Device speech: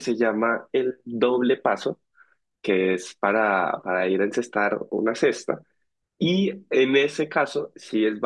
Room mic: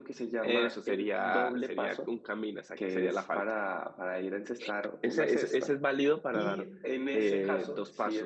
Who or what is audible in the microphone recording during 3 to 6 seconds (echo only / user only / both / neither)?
both